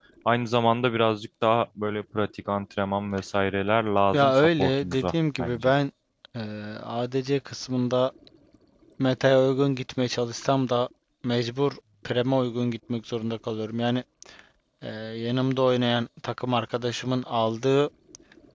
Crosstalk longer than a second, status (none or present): present